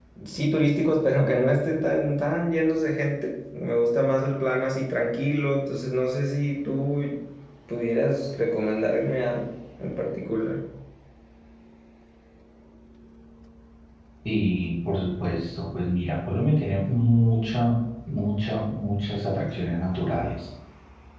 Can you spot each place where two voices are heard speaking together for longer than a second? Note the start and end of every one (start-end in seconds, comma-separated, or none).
none